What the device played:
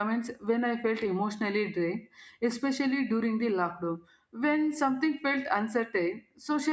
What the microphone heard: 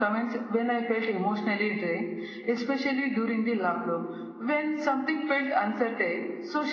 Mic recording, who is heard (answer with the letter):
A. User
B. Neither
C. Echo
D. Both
C